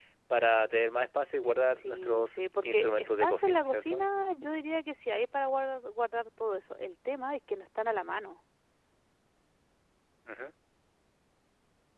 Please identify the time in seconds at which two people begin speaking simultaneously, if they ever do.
1.7 s

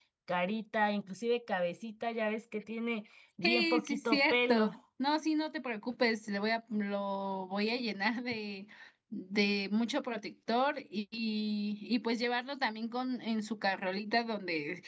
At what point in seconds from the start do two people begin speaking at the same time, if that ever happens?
3.4 s

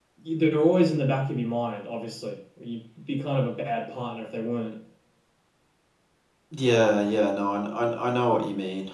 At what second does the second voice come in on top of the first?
none

